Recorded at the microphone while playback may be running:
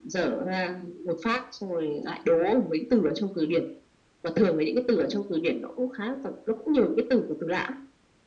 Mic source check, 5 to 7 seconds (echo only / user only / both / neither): echo only